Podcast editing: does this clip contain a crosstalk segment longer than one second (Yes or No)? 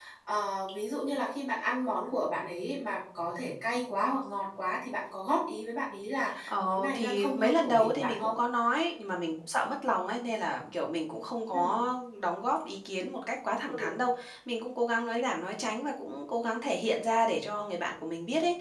Yes